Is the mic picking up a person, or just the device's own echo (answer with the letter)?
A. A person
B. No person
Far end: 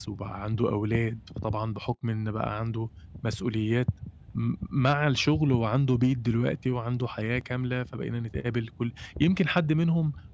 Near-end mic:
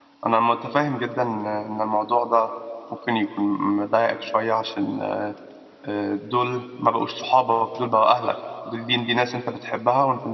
A